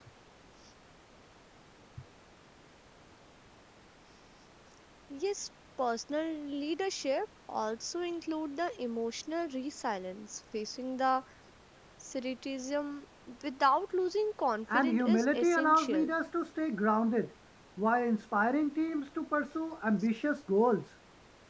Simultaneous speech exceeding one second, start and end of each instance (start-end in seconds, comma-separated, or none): 14.7-16.1